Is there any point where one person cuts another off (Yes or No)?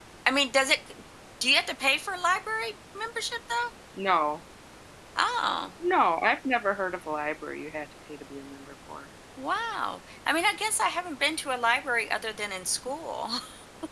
No